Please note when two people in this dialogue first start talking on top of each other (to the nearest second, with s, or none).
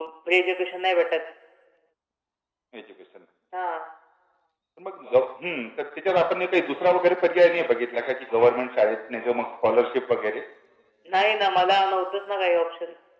none